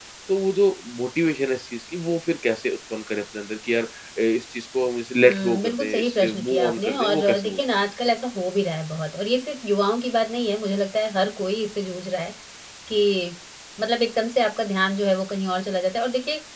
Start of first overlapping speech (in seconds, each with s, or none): 5.2 s